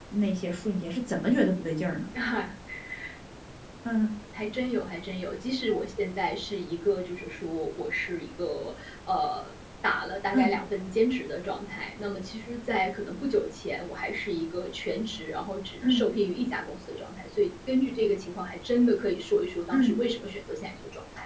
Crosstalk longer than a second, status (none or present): none